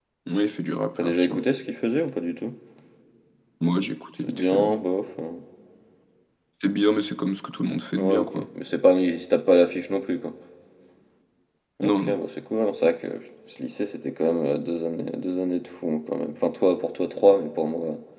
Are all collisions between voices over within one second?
Yes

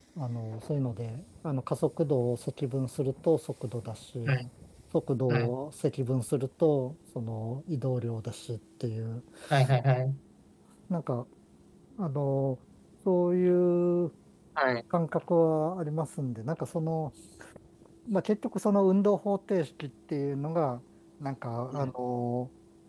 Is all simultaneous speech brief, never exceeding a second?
Yes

